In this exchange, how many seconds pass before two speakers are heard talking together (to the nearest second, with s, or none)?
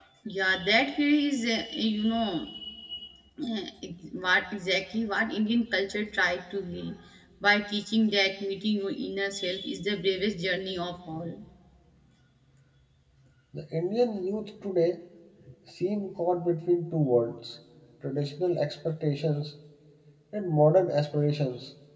none